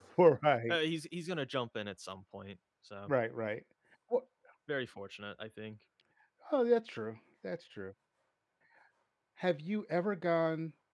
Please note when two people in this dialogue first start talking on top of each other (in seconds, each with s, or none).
none